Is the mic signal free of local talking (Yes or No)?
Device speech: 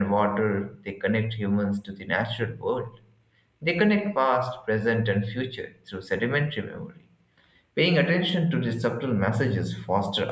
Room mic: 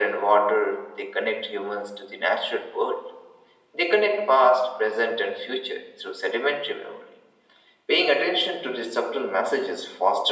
Yes